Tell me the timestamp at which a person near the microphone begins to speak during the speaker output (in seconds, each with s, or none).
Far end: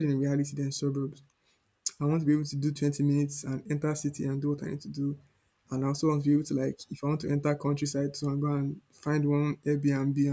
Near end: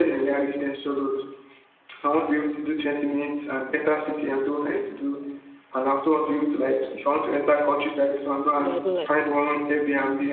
8.5 s